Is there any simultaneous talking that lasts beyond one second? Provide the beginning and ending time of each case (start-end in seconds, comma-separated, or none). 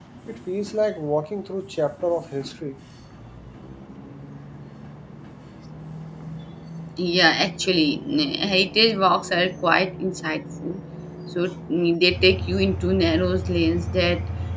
none